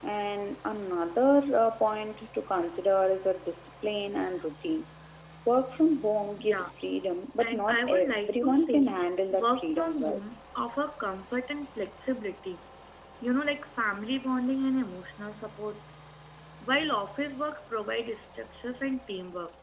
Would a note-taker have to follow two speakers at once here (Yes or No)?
Yes